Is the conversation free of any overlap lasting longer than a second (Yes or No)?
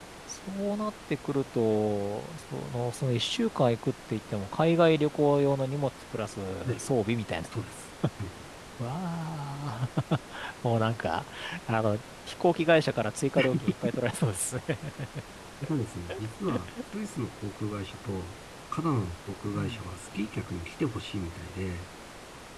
Yes